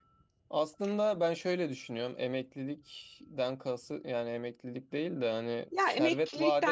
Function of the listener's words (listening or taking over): taking over